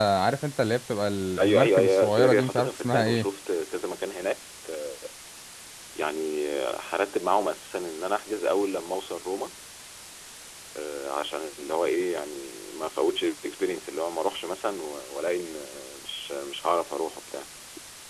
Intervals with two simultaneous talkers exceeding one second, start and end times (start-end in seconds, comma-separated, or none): 1.4-3.2